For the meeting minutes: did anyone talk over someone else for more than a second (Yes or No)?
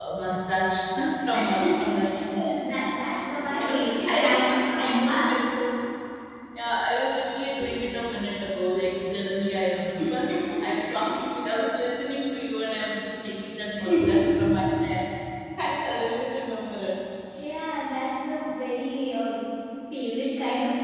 Yes